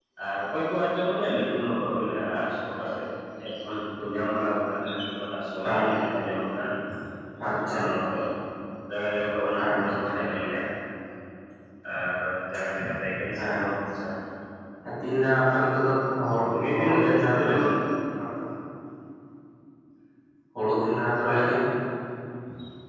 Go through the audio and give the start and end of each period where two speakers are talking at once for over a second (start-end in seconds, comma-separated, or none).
16.3-17.7